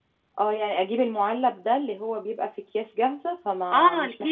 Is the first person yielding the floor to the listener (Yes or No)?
Yes